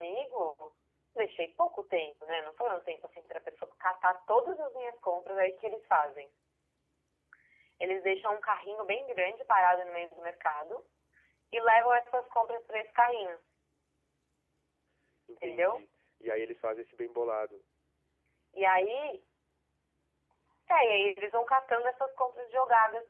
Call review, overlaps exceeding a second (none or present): none